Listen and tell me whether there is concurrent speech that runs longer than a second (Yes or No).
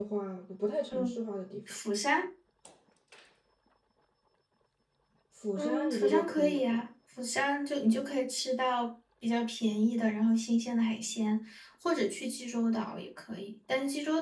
Yes